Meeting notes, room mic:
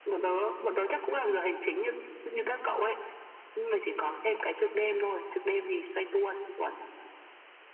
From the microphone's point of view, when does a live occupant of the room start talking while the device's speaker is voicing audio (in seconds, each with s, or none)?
none